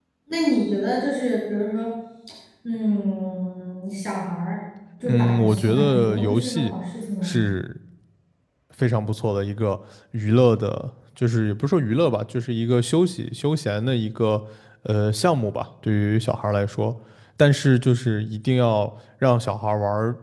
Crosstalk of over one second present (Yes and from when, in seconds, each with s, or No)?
Yes, from 5.0 s